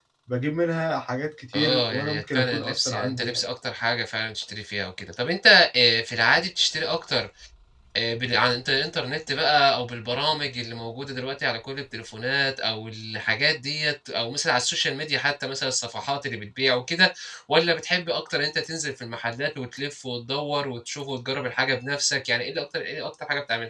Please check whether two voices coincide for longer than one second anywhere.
Yes, from 1.5 s

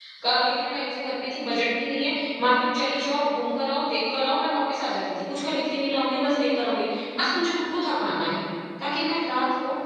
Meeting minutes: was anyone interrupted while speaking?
No

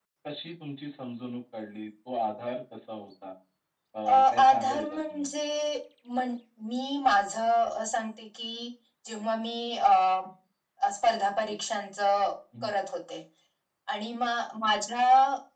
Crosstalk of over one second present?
Yes, from 4.0 s

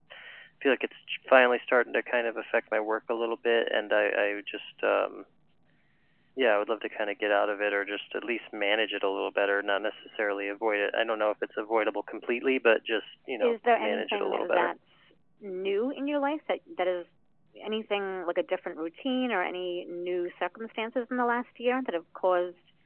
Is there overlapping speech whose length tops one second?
Yes, from 13.4 s

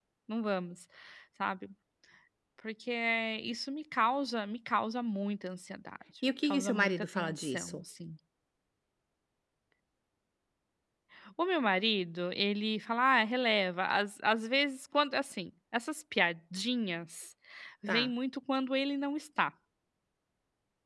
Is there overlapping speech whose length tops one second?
Yes, from 6.4 s

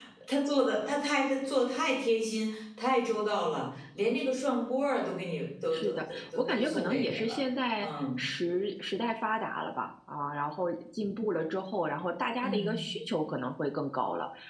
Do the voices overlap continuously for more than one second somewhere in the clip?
Yes, from 5.7 s

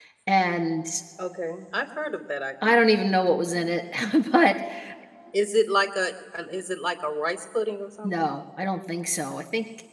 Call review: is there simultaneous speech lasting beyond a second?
No

